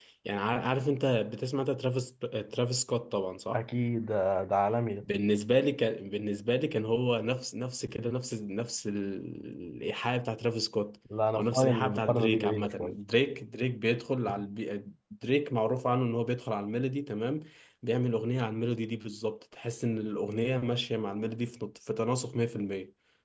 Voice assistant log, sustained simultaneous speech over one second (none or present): present